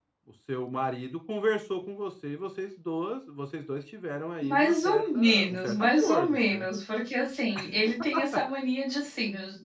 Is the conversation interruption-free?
No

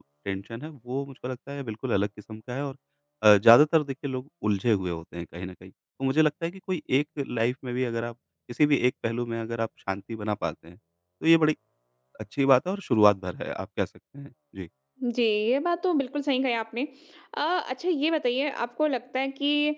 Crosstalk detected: No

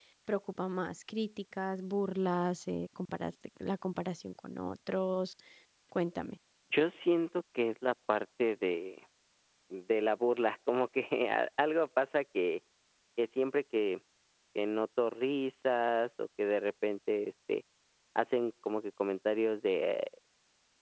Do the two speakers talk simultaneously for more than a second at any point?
No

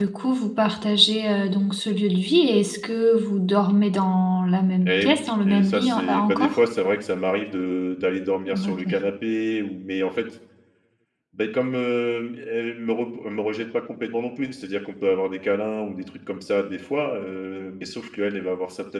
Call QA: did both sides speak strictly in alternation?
No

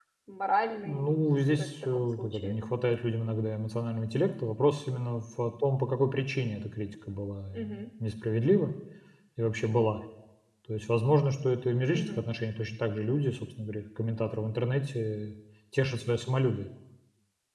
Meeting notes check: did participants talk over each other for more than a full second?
Yes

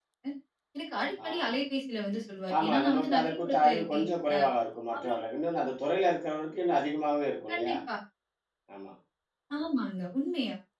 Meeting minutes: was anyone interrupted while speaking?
Yes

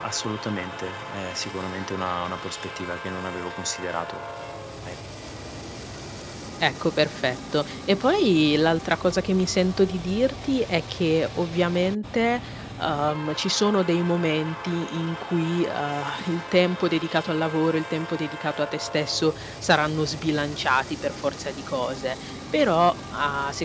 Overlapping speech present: No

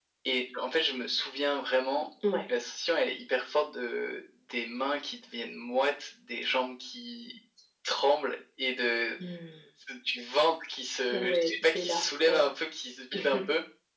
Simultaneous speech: Yes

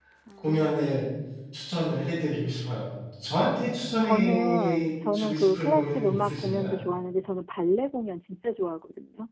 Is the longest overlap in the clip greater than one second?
Yes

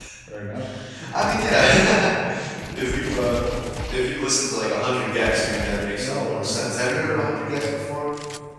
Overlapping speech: Yes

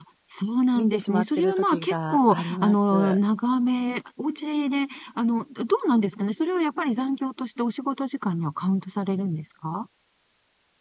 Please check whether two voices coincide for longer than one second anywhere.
Yes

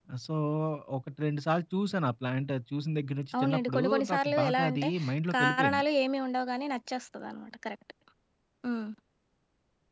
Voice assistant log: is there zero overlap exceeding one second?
No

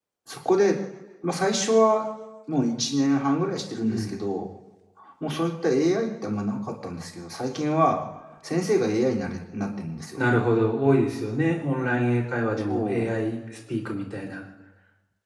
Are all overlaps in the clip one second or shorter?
Yes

